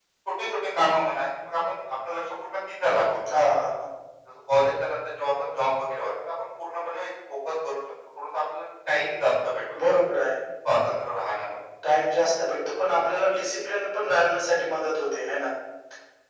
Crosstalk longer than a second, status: none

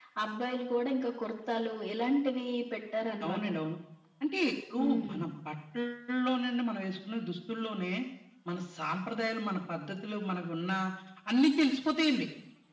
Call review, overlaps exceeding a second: none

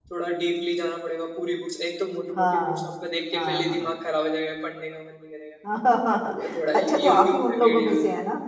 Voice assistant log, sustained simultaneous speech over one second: present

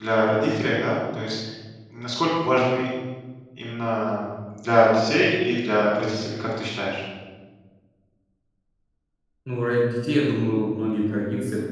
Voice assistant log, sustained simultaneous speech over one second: none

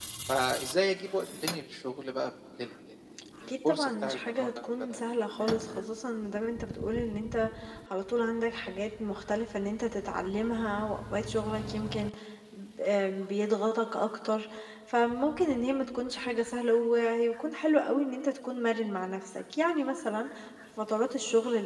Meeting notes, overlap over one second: present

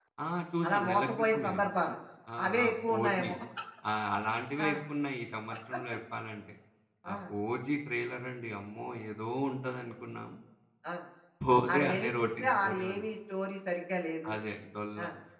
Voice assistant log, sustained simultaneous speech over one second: present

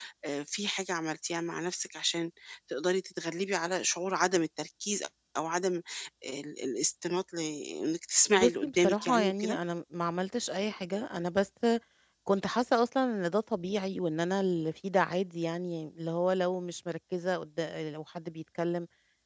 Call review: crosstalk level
present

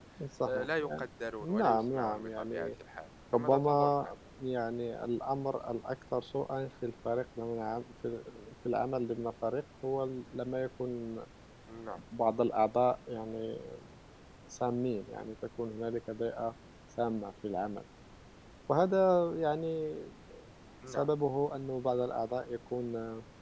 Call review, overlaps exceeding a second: present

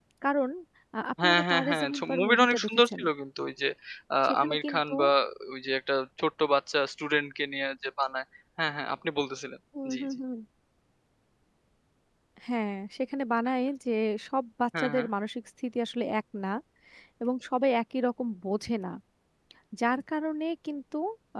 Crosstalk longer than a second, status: present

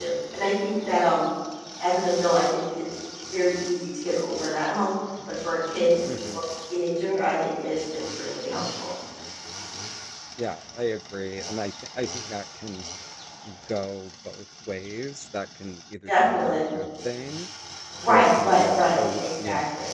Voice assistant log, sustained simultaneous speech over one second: present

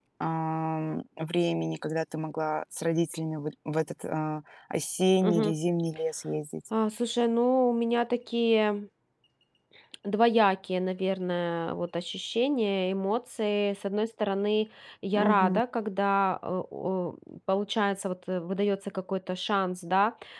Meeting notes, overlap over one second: none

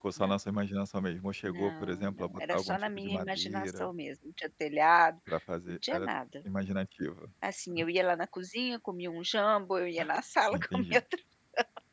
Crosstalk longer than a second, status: present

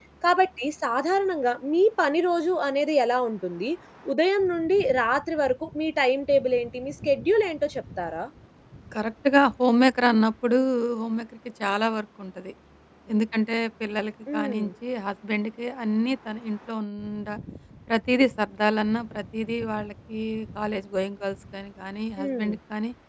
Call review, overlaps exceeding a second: none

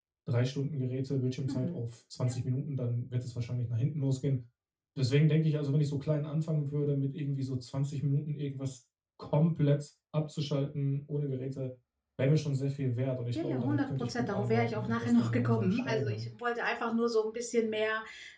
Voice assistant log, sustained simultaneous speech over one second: present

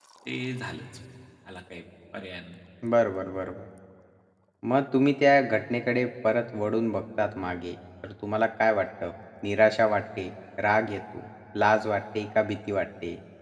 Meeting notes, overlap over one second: none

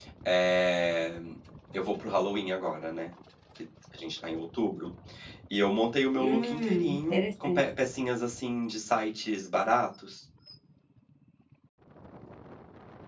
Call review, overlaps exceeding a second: present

